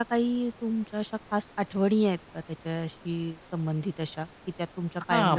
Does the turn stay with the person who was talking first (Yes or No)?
No